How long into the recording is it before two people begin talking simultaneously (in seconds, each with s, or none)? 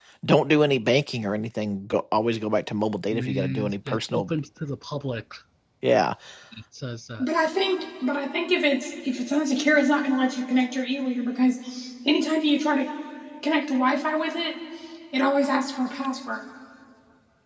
3.1 s